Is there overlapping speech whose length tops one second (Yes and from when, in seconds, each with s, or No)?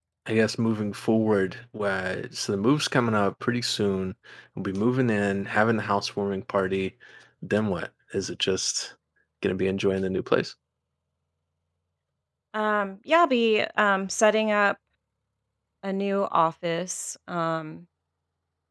No